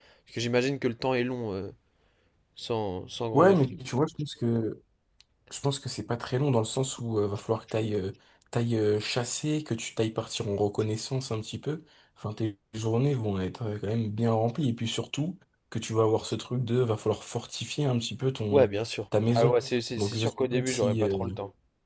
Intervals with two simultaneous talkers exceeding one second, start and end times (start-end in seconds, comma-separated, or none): 20.0-21.2